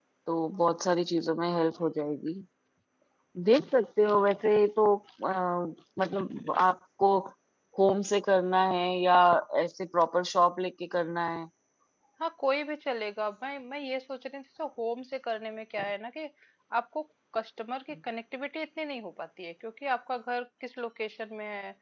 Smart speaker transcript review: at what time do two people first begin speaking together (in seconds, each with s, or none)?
none